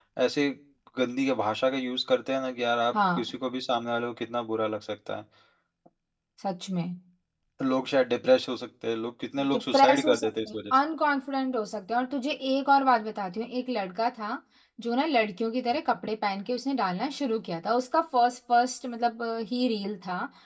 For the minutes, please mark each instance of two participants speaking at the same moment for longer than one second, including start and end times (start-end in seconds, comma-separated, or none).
9.5-10.8